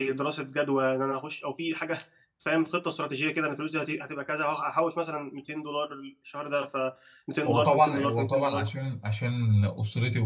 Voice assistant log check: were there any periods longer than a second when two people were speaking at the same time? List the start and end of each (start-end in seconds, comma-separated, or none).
7.5-8.7